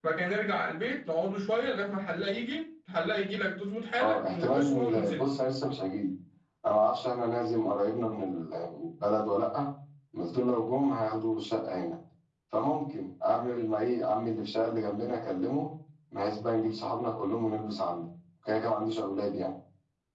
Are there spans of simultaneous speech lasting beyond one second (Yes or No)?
Yes